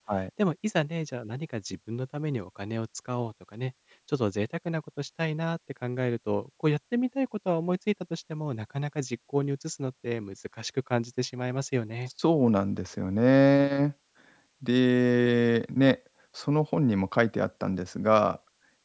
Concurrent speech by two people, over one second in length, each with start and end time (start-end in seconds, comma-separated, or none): none